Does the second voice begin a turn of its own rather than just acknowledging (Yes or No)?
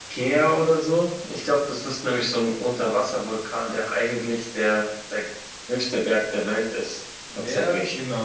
Yes